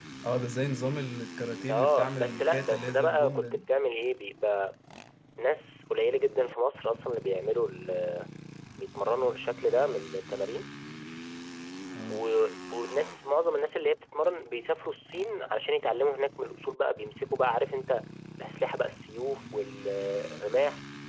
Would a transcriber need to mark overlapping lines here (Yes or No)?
Yes